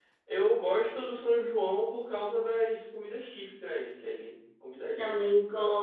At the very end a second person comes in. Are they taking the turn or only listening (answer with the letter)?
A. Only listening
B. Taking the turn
B